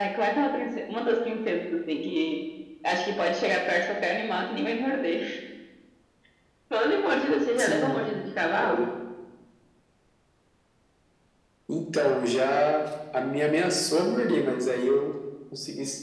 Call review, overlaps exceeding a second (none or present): none